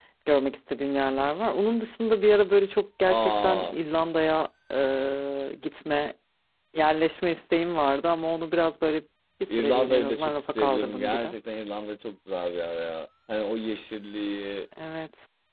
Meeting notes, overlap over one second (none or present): present